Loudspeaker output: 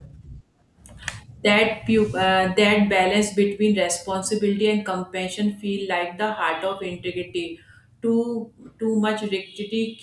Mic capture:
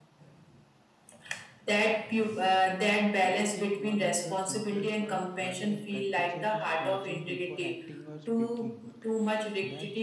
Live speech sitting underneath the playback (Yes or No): Yes